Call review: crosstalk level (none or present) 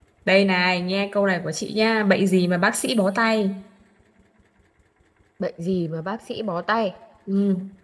none